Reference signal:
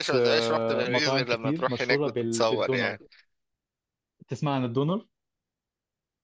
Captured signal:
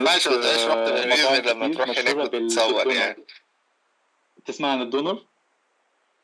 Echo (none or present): present